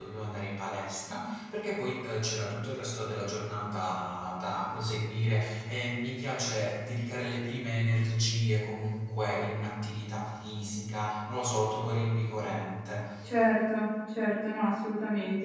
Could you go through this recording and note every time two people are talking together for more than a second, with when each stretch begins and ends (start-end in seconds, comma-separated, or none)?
none